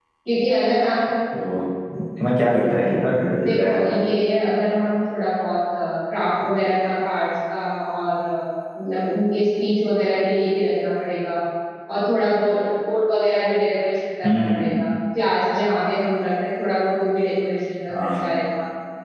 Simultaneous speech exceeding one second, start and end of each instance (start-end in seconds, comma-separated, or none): none